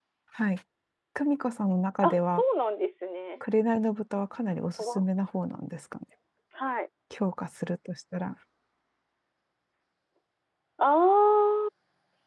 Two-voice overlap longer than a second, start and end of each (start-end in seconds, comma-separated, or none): none